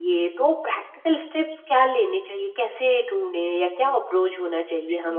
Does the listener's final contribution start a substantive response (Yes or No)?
Yes